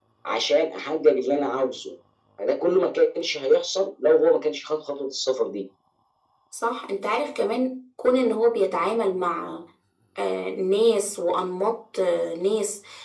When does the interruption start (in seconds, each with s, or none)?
none